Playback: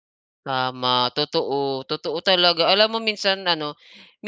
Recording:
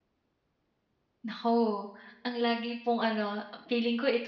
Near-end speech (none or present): present